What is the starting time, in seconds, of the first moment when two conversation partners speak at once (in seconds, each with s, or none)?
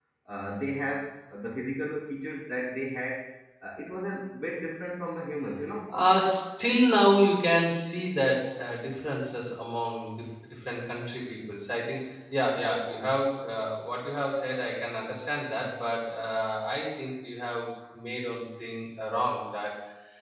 none